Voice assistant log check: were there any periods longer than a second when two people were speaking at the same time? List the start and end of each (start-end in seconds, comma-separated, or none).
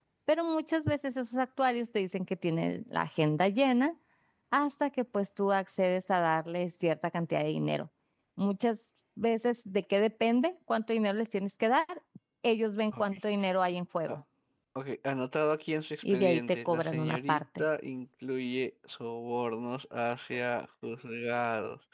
16.1-17.6